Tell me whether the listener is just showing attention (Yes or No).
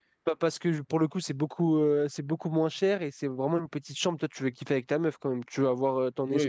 No